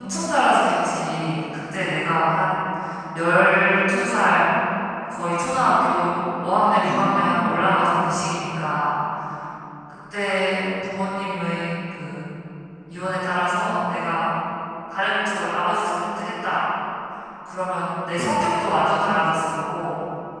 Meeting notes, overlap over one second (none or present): present